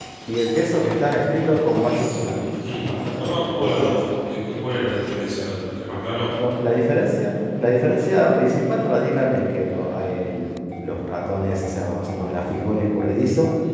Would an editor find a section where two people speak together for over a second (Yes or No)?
Yes